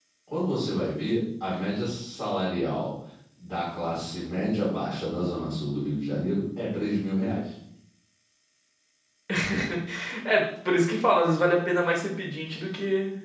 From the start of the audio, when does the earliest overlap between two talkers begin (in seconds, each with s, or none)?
none